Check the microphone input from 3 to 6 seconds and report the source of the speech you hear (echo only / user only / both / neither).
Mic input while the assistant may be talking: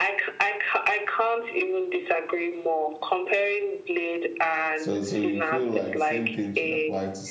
both